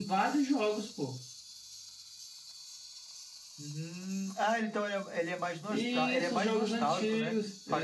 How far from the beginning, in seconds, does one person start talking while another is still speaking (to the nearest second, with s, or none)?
6 s